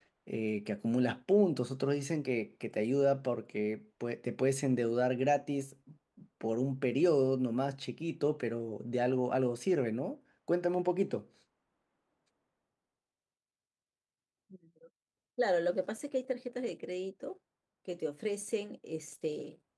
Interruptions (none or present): none